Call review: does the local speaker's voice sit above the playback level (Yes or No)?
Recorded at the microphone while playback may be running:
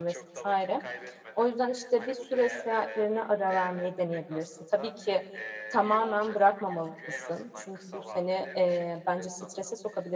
Yes